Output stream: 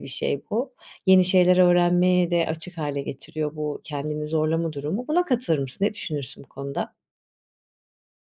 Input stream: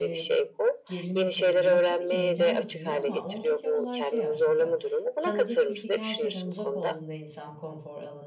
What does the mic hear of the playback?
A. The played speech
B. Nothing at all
A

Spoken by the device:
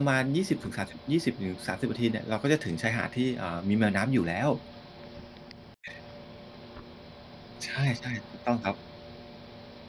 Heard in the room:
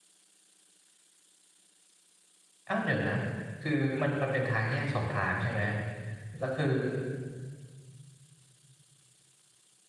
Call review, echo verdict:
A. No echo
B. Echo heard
A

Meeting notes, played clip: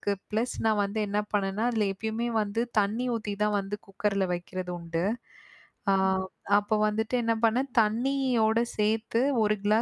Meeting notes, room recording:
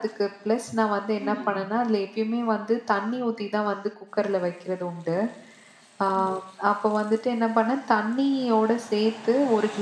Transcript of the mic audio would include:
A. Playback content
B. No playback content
A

